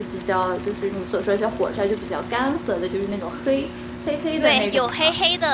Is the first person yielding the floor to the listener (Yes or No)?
Yes